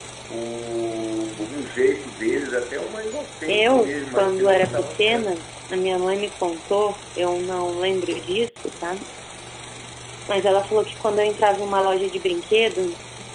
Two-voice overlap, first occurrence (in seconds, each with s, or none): 3.5 s